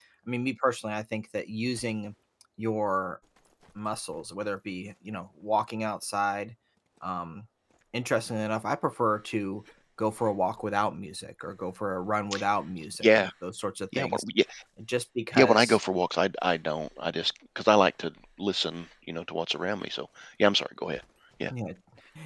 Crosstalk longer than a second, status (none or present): none